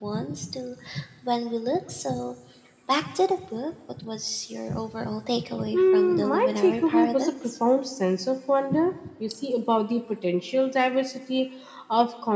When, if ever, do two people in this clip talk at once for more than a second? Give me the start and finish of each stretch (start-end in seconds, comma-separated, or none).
5.7-7.3